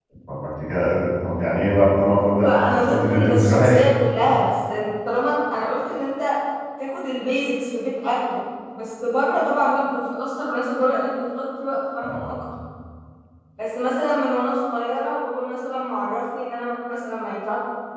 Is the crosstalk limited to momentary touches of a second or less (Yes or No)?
No